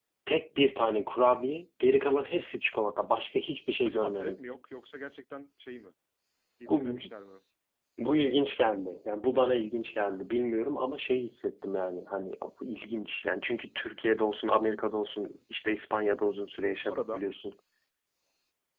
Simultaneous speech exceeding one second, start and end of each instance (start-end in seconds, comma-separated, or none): none